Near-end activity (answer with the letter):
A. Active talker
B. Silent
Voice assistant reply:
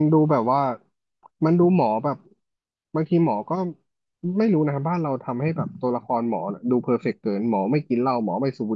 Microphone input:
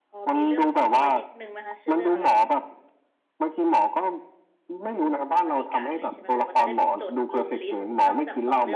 A